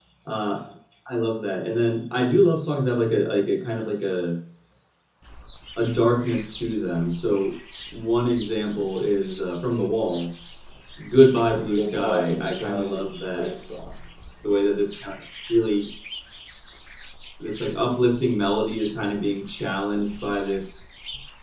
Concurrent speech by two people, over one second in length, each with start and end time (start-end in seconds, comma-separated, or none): 11.7-13.5